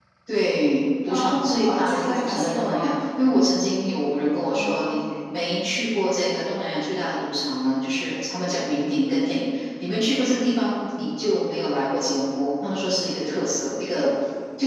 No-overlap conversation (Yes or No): No